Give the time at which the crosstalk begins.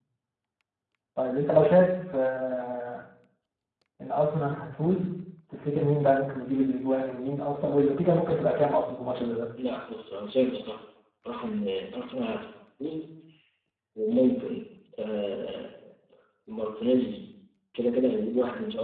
none

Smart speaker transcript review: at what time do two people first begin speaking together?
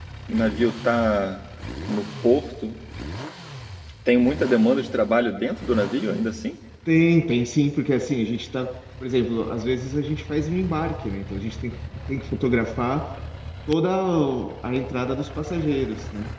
none

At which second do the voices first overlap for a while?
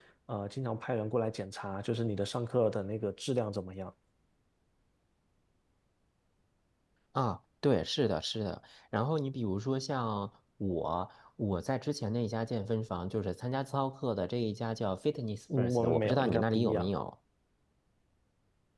15.5 s

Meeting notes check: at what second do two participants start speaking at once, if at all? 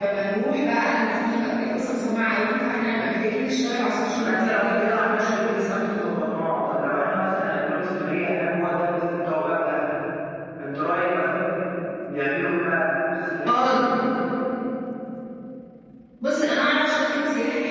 4.2 s

